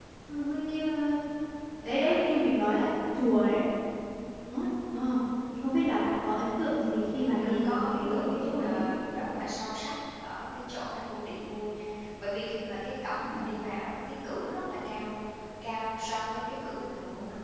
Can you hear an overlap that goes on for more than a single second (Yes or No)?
Yes